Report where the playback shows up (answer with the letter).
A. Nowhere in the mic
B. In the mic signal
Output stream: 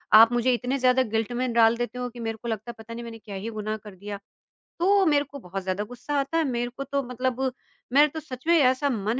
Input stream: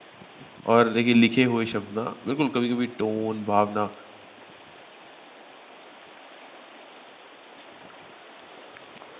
A